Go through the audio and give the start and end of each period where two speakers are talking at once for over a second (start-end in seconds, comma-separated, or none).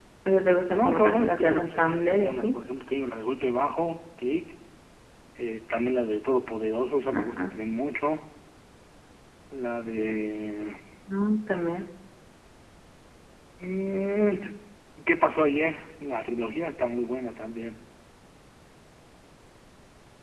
0.7-2.5